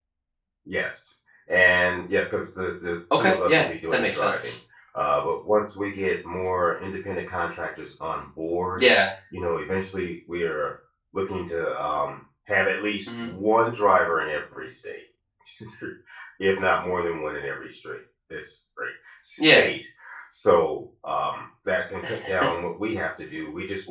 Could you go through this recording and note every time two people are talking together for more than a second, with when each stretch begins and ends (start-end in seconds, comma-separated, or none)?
3.1-4.6